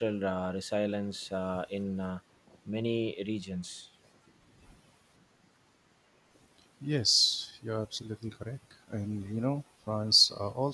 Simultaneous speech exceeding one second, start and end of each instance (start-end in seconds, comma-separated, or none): none